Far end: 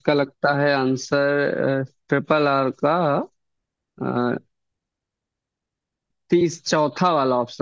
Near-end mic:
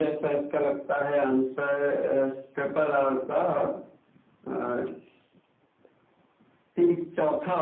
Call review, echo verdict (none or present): present